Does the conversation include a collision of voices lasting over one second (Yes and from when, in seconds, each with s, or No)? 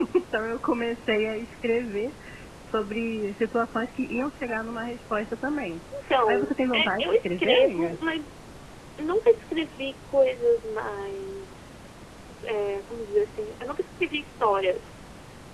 Yes, from 6.2 s